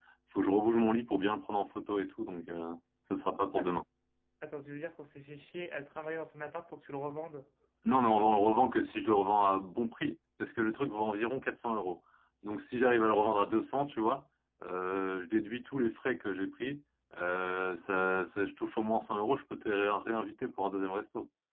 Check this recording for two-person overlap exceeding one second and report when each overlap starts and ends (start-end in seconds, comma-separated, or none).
none